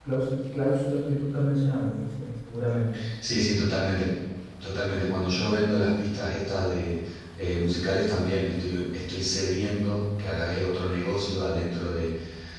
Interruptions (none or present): none